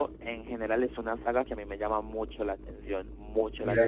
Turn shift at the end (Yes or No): Yes